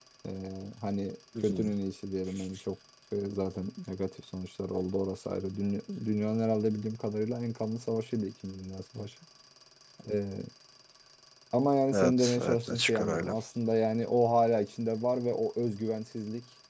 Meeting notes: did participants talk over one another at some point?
Yes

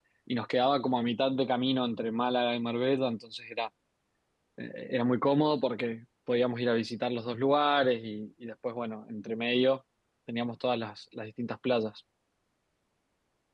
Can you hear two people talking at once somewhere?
No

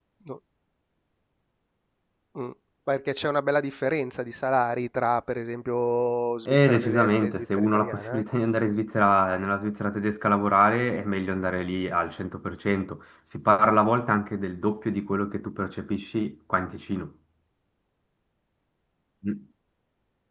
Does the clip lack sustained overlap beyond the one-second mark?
No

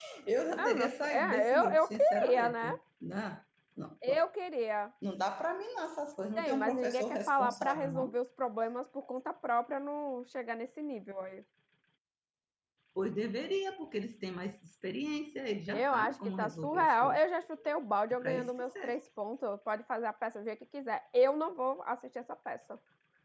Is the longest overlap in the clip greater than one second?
Yes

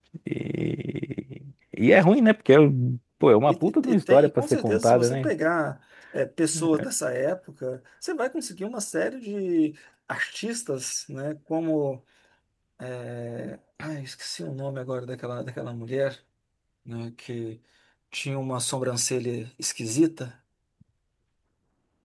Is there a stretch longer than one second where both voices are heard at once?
Yes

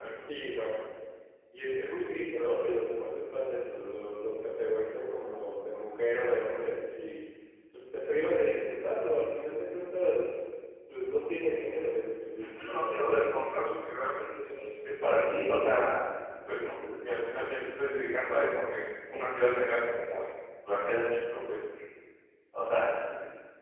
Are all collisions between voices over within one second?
No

